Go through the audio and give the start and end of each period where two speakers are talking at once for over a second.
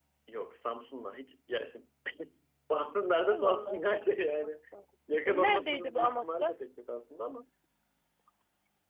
5.2-6.5

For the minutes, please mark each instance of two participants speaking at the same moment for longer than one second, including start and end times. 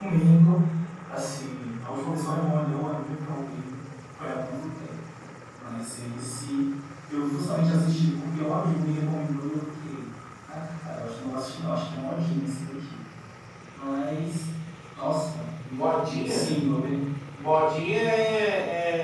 none

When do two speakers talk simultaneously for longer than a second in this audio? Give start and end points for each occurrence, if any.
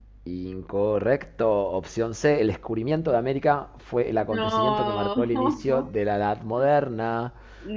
4.3-5.9

